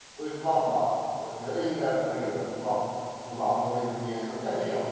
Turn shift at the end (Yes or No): Yes